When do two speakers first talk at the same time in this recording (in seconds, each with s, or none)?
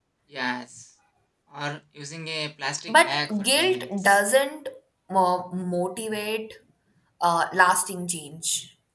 2.9 s